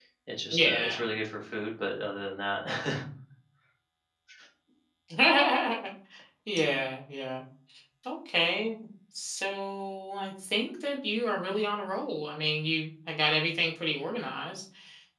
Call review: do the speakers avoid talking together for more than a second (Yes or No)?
Yes